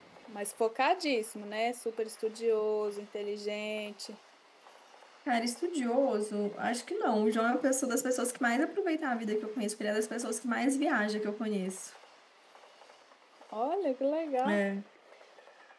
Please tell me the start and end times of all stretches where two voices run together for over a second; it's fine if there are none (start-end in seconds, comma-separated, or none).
none